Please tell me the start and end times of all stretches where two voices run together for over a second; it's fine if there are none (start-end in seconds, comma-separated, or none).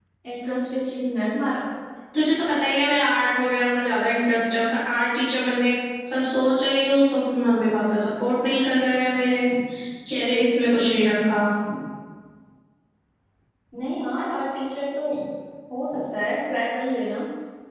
none